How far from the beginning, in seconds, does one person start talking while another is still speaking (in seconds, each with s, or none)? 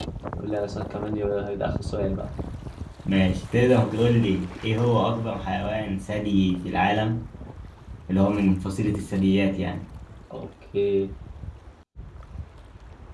none